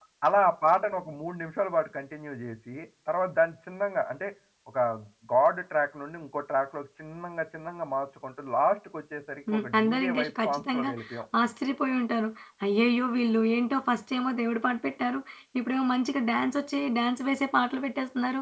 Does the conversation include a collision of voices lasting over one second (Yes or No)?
Yes